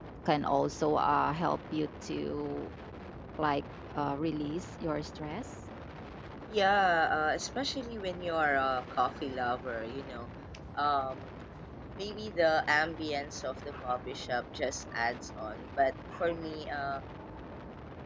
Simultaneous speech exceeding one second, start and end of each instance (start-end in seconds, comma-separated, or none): none